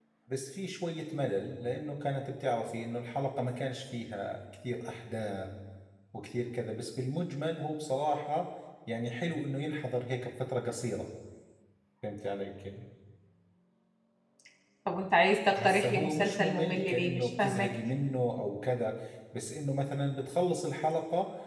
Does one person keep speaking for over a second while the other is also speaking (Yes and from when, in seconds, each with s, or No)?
Yes, from 15.6 s